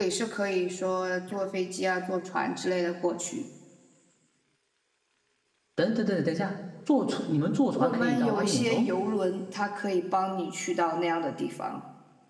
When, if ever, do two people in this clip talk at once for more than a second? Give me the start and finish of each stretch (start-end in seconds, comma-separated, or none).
7.8-9.0